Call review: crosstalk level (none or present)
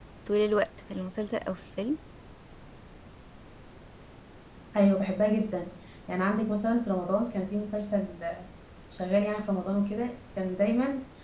none